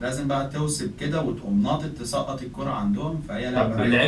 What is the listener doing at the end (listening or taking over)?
taking over